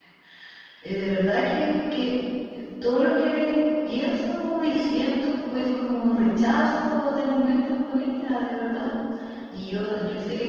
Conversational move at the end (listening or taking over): listening